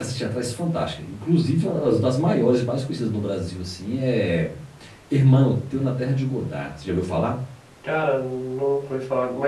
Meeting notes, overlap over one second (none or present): none